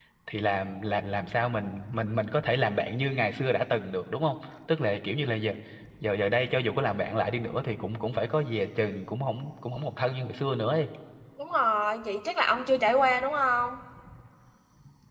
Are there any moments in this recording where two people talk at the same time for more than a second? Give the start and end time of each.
none

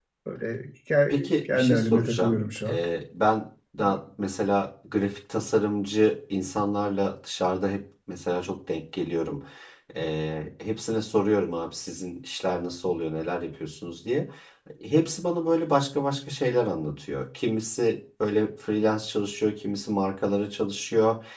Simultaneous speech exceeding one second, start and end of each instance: 1.1-2.8

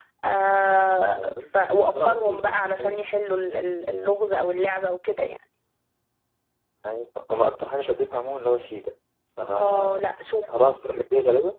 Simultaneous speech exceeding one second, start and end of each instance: 1.1-3.0

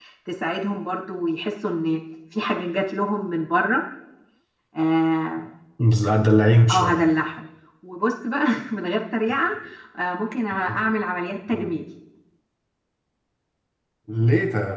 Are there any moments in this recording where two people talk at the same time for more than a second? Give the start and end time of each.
none

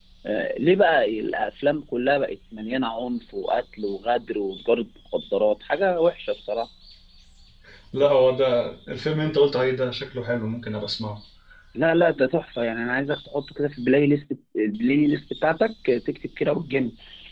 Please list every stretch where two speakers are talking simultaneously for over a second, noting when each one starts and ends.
none

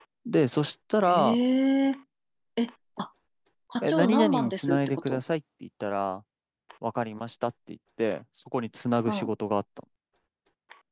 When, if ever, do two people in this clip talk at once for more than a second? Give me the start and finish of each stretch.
3.8-5.2

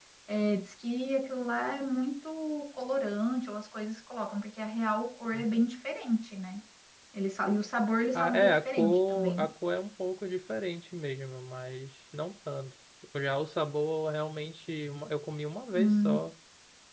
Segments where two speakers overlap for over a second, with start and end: 8.2-9.4

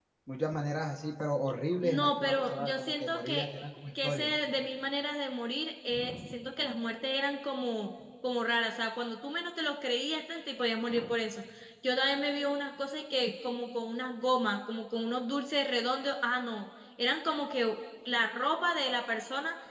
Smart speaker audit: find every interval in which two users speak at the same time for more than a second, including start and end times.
1.8-3.5

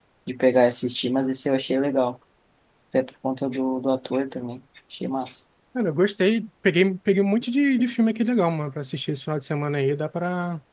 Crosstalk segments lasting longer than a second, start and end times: none

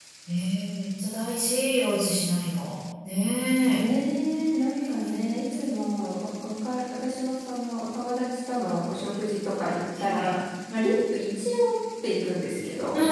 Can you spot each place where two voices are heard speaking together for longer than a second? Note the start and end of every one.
none

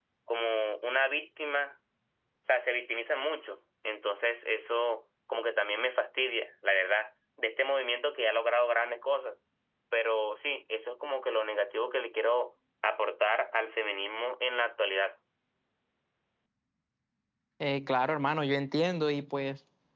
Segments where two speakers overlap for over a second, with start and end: none

